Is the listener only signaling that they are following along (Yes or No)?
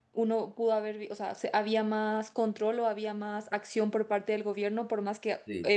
Yes